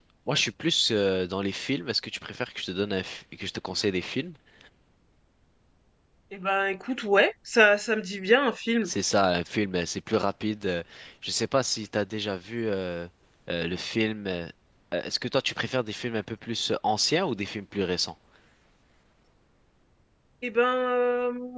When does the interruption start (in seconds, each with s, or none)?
none